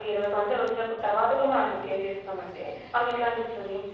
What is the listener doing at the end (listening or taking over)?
listening